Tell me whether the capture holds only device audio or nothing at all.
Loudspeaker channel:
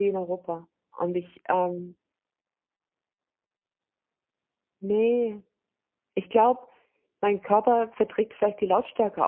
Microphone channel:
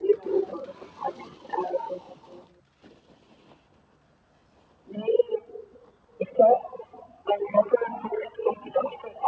Yes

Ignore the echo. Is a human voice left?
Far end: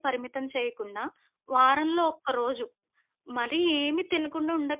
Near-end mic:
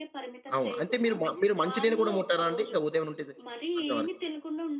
Yes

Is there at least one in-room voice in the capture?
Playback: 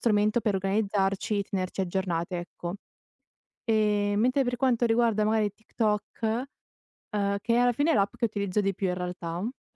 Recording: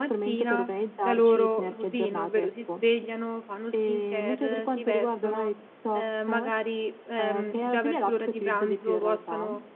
Yes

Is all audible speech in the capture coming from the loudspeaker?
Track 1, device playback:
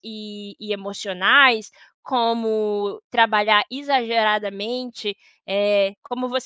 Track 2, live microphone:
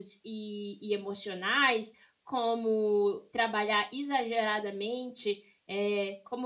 Yes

